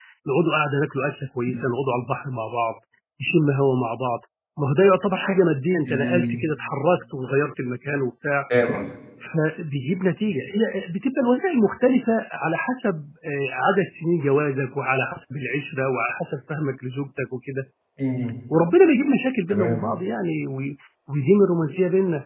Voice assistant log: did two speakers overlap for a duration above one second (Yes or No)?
No